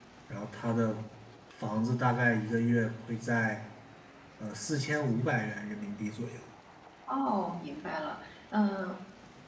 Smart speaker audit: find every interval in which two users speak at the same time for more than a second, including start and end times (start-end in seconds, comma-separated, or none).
none